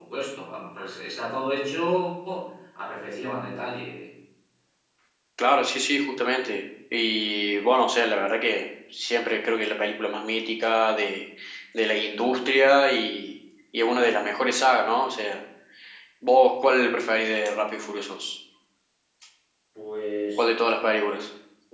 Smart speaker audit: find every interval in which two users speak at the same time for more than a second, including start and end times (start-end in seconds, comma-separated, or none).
none